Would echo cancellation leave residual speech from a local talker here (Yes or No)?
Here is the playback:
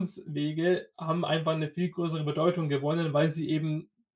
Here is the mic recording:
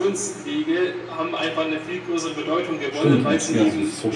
Yes